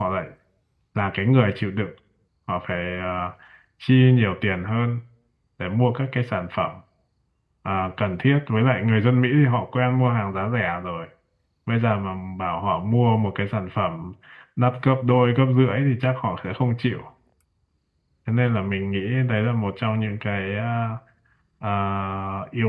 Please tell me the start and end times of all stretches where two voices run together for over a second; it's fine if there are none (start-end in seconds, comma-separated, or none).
none